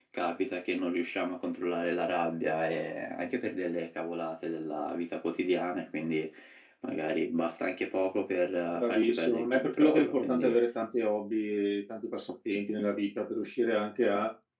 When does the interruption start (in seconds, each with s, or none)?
8.7 s